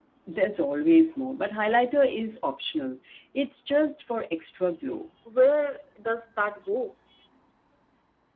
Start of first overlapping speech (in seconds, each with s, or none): none